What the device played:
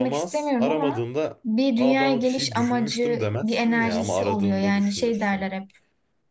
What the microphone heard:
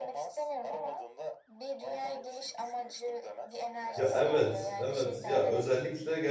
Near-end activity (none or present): present